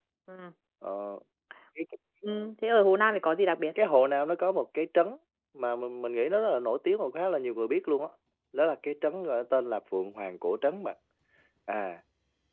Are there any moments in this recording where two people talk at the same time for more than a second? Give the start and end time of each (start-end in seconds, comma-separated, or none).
none